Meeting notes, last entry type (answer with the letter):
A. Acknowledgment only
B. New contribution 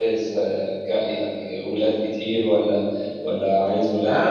B